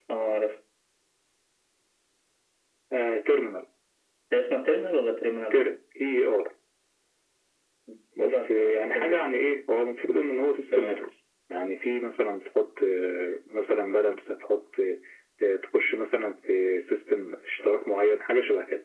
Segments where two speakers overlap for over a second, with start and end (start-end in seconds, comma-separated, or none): 8.2-9.4